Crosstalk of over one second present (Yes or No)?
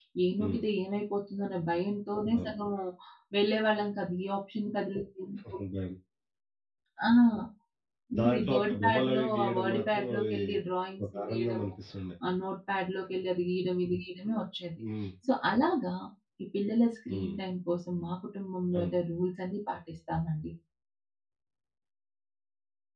Yes